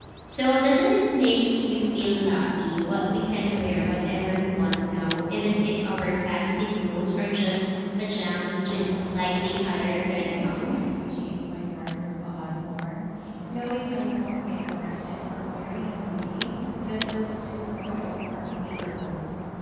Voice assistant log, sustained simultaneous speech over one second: present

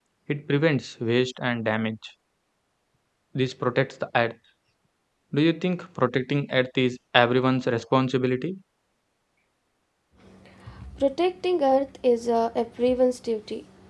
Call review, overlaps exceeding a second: none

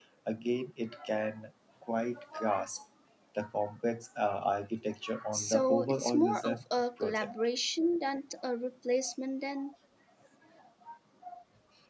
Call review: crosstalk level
present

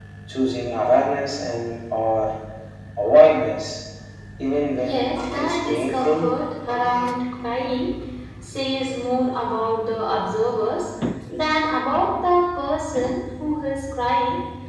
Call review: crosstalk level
present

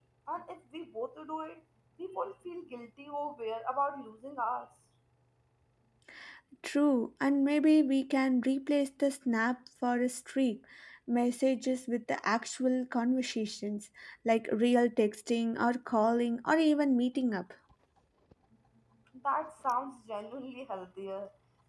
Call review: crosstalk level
none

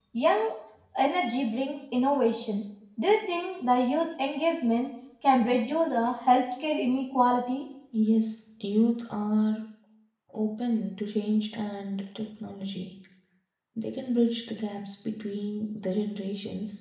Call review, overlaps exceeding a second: none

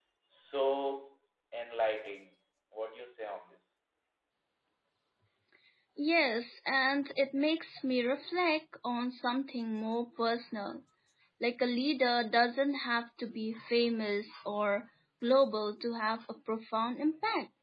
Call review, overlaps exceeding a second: none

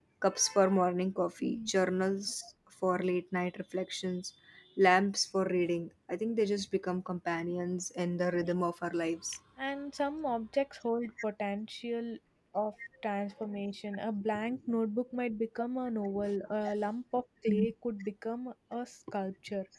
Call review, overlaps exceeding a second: none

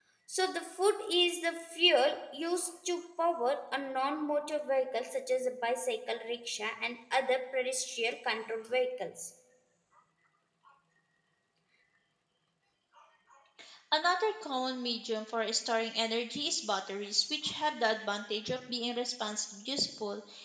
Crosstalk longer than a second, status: none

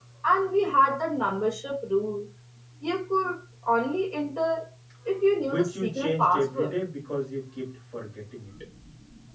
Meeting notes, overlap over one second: present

